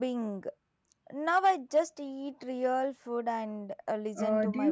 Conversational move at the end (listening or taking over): taking over